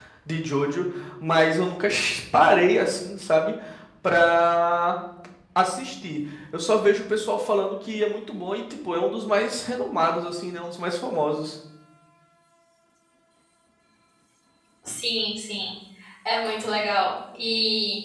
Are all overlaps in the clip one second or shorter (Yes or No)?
Yes